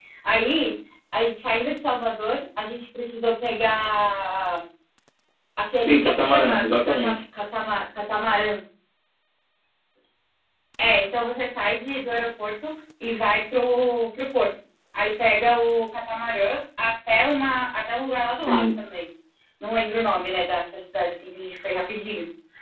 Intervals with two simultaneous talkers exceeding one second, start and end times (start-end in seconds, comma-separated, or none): 5.9-7.2